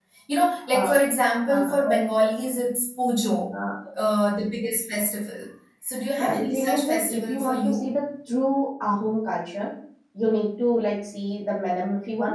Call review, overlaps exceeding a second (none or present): present